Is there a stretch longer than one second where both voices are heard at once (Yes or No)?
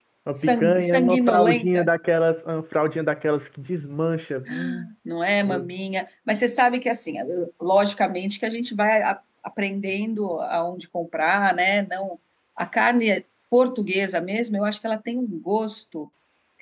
Yes